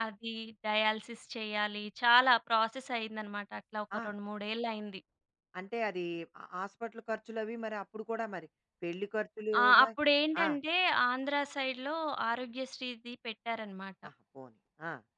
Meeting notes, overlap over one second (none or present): none